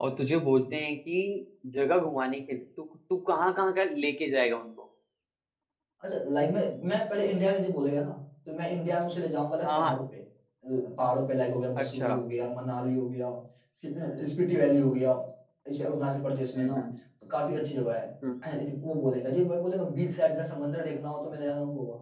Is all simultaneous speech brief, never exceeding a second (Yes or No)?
Yes